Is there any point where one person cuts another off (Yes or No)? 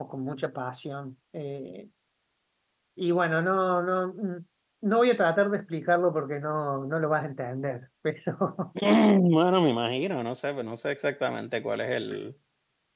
No